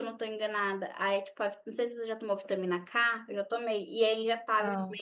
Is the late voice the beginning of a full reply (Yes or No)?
No